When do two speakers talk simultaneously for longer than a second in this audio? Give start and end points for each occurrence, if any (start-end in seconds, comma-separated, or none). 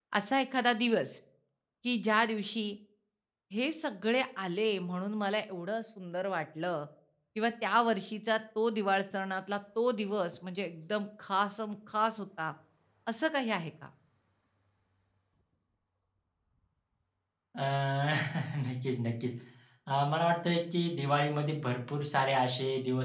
none